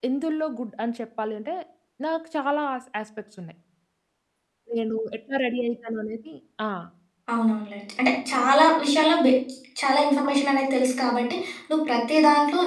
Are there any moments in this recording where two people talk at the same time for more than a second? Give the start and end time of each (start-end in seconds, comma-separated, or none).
none